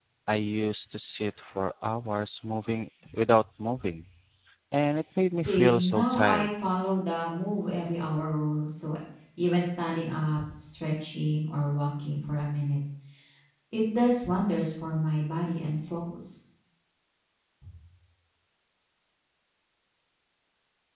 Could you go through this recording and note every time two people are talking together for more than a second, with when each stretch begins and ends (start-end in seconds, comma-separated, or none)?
5.3-6.5